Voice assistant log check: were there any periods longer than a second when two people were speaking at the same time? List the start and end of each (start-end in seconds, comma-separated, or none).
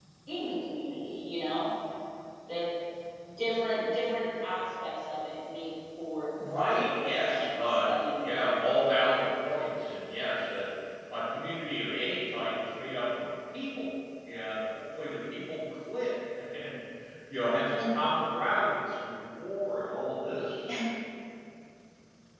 6.7-8.6